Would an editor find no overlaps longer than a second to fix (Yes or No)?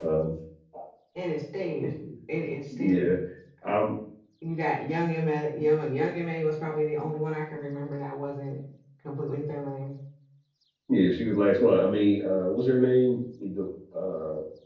Yes